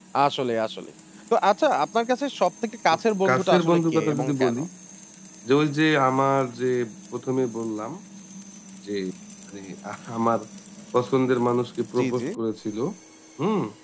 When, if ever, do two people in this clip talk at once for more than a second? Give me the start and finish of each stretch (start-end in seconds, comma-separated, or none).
3.3-4.5